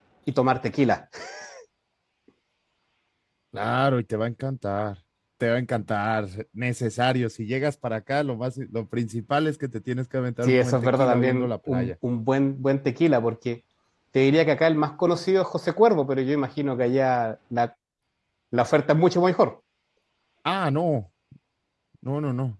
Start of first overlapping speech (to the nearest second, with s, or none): 10 s